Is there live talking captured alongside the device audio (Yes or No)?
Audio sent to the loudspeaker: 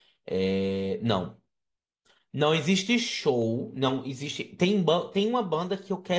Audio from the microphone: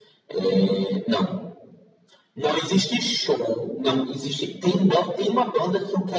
No